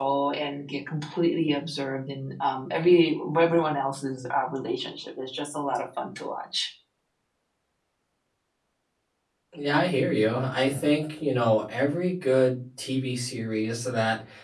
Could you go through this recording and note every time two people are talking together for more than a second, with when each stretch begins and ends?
none

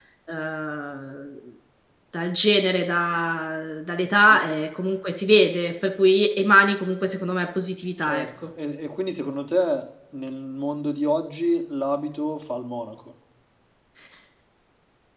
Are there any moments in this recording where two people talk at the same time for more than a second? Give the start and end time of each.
none

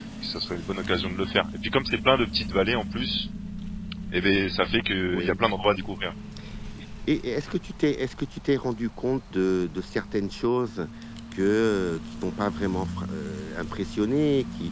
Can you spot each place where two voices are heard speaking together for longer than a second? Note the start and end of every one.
none

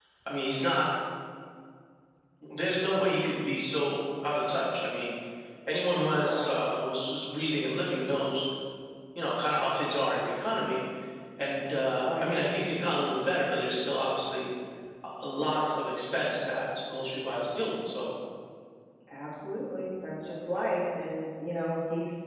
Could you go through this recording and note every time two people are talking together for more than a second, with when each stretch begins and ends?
none

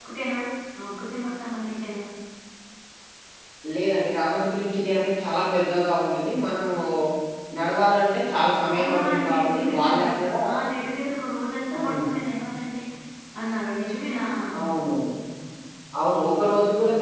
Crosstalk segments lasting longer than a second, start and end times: 8.8-10.0

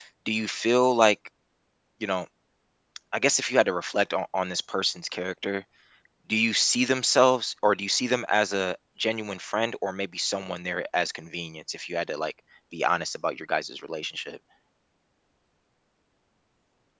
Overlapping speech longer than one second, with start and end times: none

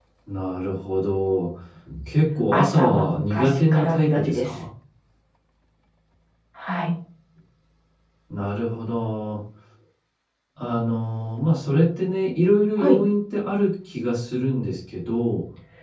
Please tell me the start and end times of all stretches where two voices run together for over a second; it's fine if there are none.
2.5-4.6

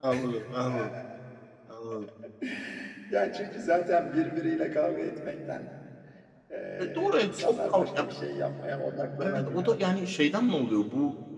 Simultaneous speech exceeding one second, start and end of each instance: 6.8-8.1

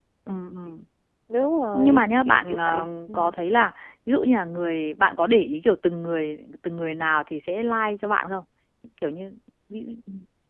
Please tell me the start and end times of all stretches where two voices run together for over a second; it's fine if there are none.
1.7-3.1

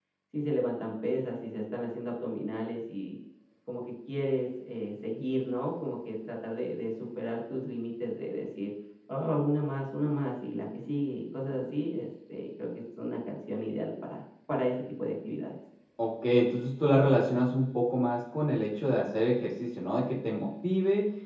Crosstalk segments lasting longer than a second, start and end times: none

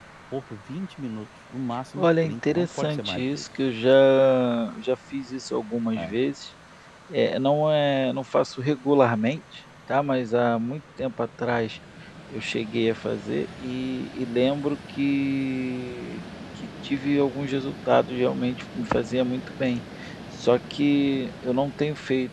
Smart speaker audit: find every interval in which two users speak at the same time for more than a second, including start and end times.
2.0-3.4

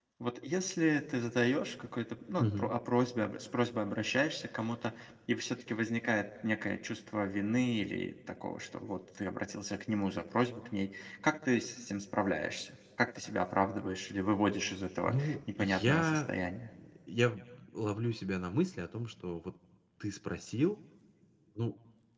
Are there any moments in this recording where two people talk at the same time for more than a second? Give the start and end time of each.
15.1-16.3

